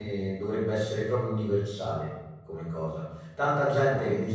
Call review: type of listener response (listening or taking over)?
listening